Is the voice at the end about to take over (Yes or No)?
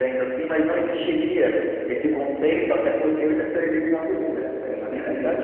Yes